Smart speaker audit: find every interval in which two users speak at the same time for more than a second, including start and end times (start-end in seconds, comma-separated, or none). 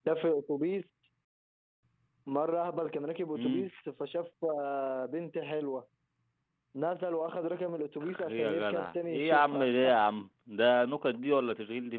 8.0-9.7